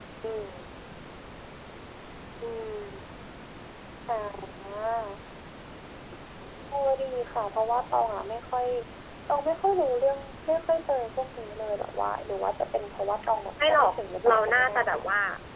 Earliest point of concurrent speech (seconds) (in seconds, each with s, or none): 13.6 s